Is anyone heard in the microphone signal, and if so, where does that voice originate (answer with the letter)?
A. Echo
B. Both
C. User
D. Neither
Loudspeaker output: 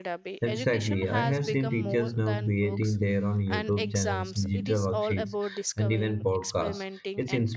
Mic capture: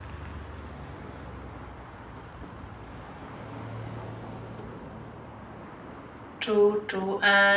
C